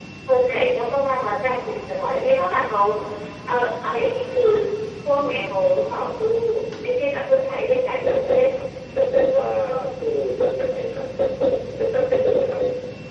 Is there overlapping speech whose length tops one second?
No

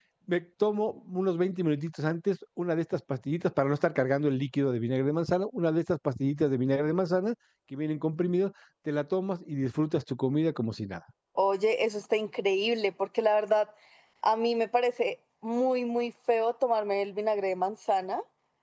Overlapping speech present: No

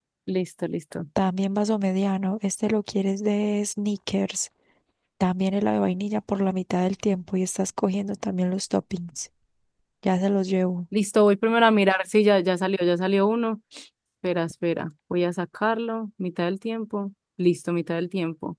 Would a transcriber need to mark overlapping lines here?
No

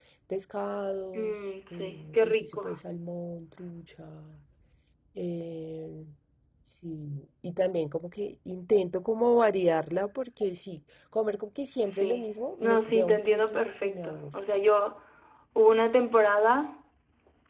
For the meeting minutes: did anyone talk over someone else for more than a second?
Yes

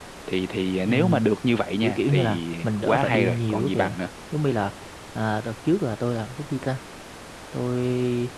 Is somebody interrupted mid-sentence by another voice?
Yes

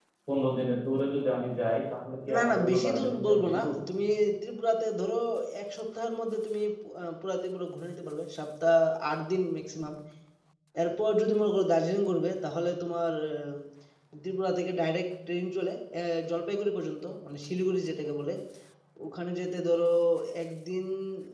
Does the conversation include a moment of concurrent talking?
Yes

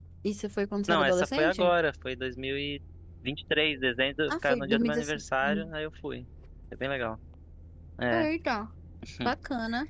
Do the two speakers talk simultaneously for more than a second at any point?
Yes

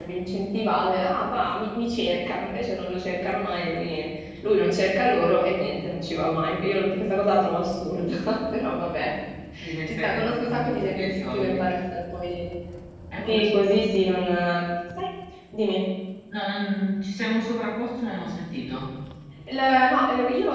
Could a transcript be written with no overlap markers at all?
No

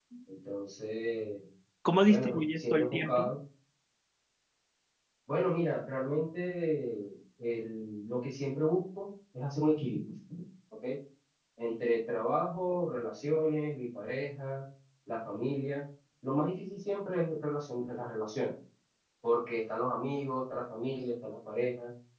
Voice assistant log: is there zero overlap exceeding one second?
No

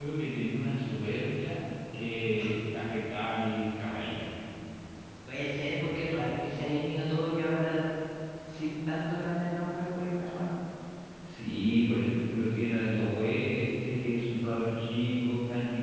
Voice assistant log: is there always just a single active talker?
Yes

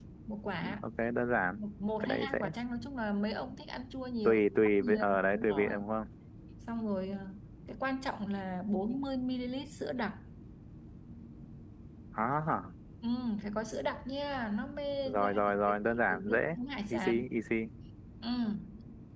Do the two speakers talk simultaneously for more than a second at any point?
Yes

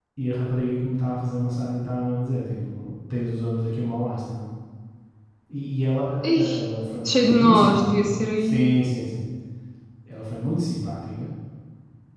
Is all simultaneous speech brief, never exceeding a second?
No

